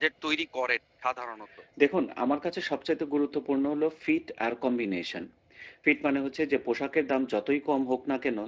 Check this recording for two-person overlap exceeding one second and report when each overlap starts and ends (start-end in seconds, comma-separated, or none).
none